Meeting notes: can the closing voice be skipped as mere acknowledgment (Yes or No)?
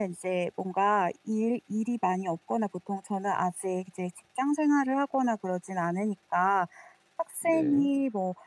Yes